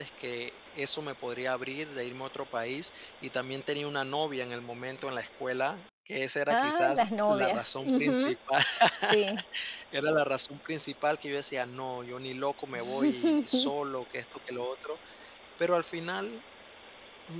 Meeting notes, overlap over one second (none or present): present